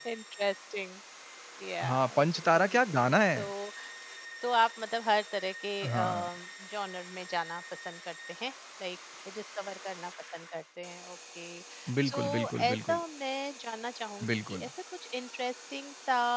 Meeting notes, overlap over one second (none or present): present